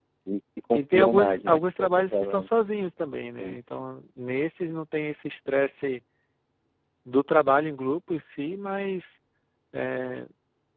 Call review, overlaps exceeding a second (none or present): present